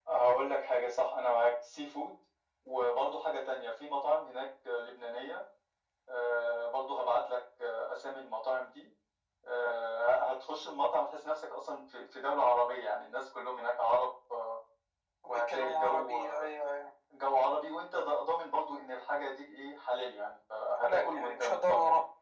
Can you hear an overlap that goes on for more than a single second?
Yes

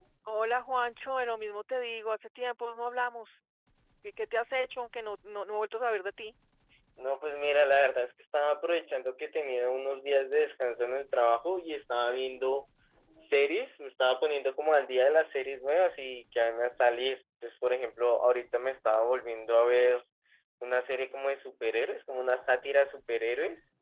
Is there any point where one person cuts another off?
No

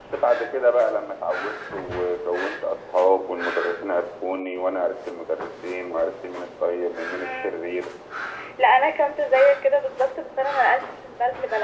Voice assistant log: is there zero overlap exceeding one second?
Yes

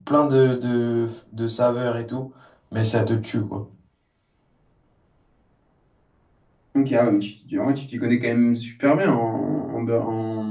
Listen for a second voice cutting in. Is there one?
No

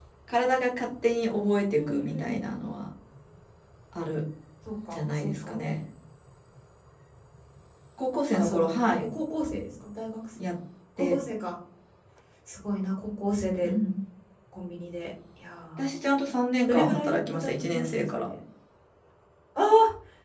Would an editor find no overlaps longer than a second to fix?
No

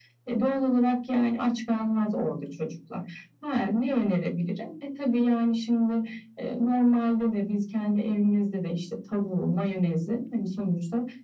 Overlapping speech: No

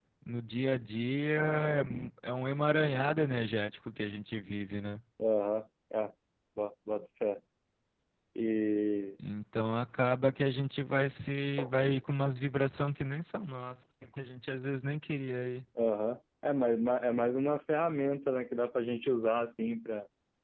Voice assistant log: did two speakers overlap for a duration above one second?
No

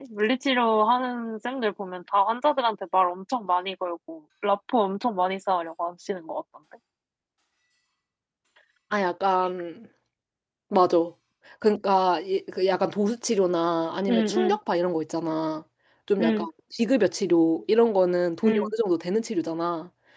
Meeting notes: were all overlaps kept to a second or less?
Yes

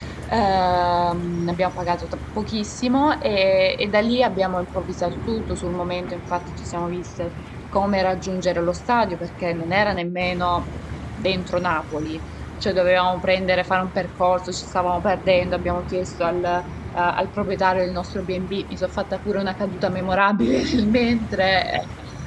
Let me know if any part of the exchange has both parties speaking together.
No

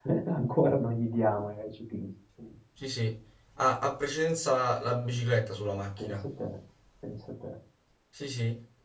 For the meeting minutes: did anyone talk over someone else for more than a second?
No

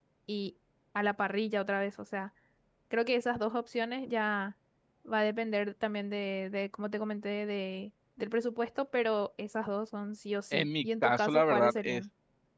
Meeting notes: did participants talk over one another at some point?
Yes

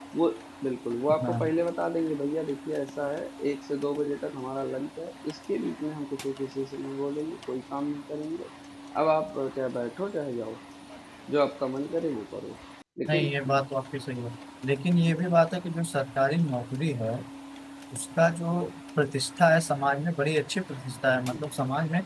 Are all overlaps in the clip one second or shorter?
Yes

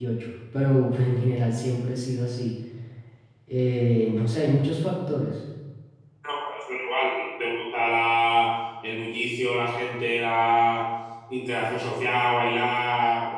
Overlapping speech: No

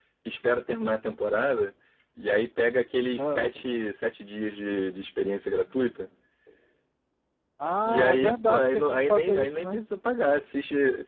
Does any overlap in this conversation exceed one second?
Yes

